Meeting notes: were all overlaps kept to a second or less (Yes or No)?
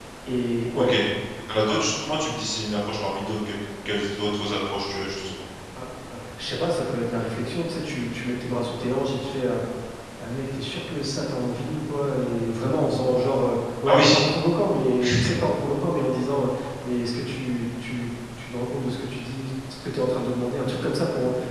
Yes